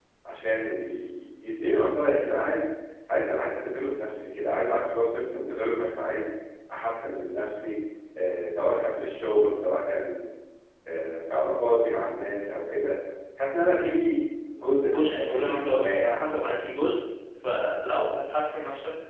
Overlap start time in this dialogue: 15 s

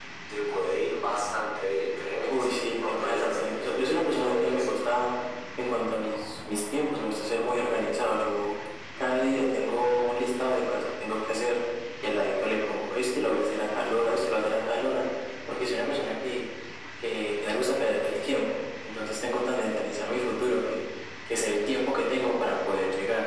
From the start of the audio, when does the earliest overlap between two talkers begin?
2 s

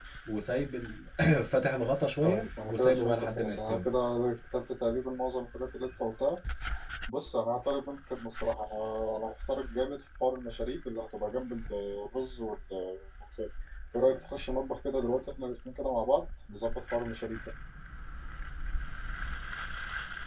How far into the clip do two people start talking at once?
2 s

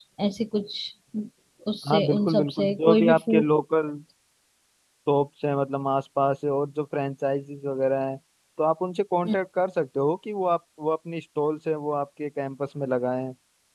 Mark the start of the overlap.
2 s

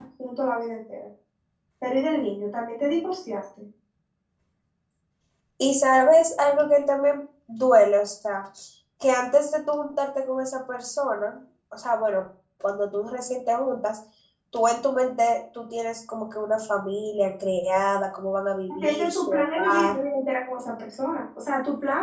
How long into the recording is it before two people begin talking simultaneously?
19 s

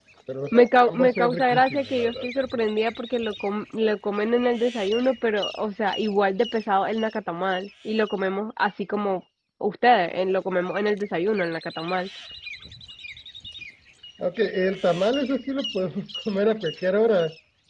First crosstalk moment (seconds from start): 1 s

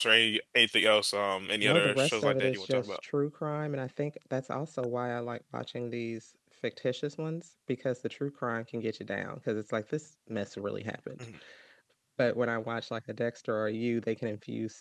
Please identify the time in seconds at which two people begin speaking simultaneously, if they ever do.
2 s

